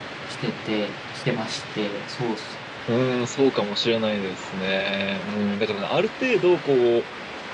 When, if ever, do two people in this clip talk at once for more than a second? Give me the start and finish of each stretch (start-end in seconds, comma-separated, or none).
none